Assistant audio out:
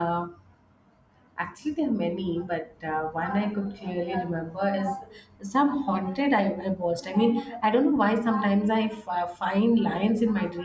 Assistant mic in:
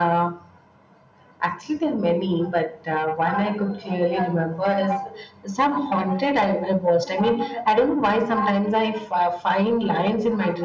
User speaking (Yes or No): No